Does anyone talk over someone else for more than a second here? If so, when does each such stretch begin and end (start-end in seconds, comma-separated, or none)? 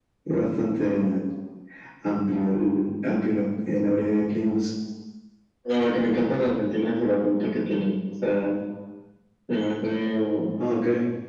none